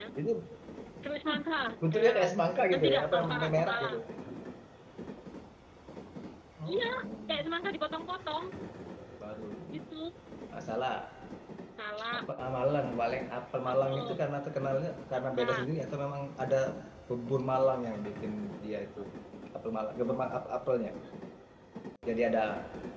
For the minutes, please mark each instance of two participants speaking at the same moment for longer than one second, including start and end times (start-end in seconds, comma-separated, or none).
2.7-4.0